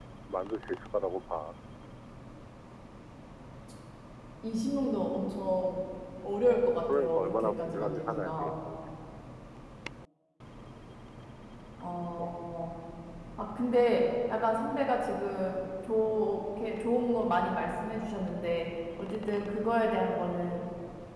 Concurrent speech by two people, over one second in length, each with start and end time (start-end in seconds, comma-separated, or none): 7.0-8.5